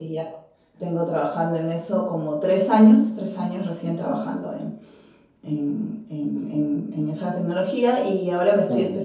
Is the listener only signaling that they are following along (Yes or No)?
Yes